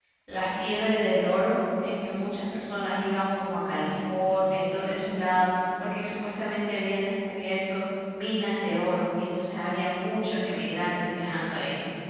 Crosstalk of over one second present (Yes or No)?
No